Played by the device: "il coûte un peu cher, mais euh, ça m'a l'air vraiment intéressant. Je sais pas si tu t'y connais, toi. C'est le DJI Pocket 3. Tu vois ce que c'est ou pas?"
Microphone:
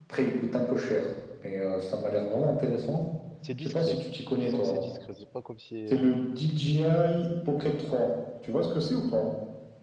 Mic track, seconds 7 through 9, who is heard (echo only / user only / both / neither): echo only